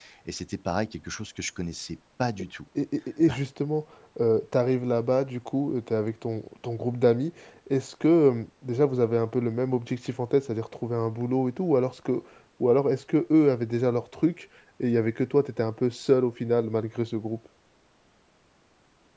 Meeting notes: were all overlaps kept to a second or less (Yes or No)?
Yes